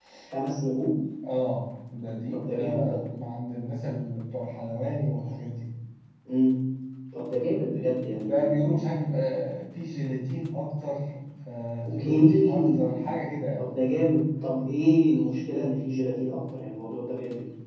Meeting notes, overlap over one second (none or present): present